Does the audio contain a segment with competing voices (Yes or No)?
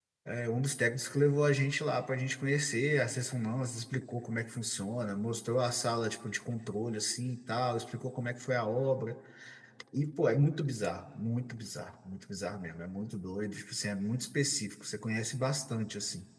No